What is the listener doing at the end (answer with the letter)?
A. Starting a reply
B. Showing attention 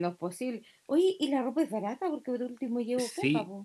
A